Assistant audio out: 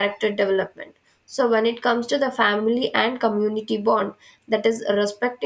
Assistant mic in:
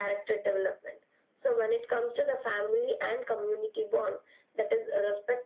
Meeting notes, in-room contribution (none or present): none